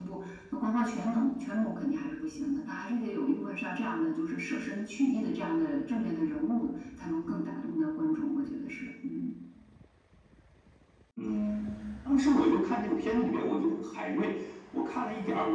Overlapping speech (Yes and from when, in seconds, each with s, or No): No